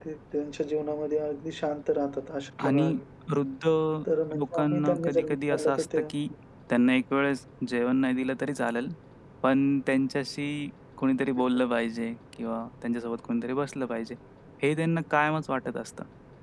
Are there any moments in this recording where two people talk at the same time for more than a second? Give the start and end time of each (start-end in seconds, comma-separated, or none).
4.4-6.0